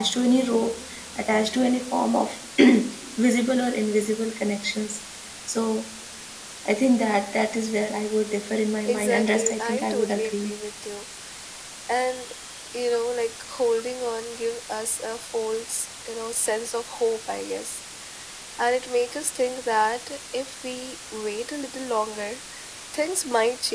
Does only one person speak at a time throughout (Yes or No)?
No